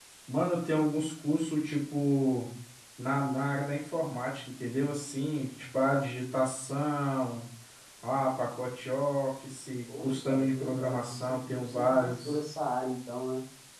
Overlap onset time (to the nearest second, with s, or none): 10 s